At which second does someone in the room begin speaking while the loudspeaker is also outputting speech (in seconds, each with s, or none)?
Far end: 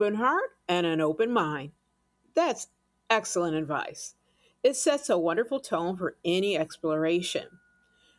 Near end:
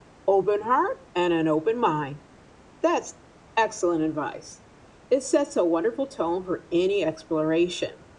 none